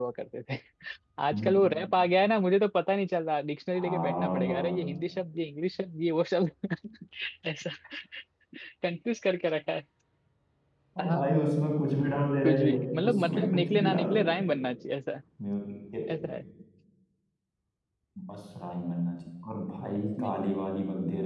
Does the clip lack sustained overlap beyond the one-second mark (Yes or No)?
No